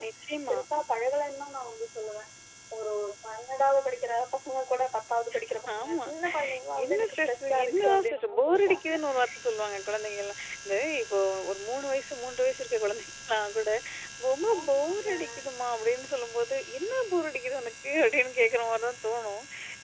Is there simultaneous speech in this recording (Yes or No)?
Yes